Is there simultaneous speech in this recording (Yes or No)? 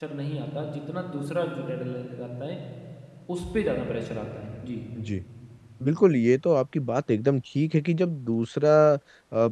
No